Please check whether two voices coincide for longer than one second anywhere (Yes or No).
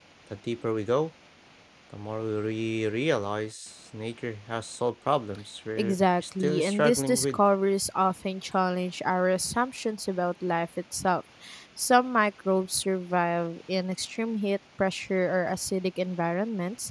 Yes